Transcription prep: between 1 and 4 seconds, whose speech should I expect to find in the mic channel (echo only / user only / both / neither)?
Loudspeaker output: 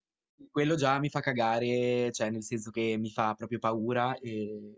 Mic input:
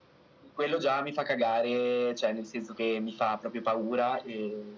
echo only